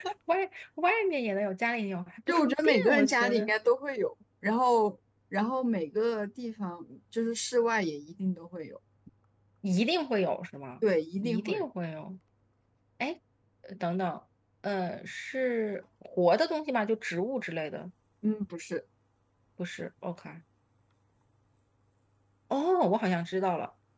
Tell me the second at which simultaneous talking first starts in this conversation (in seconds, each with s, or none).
2.3 s